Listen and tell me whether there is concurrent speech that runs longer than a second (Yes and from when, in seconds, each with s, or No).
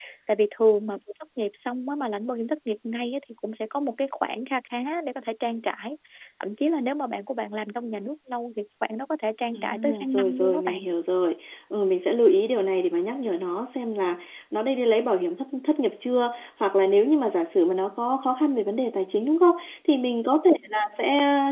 Yes, from 9.5 s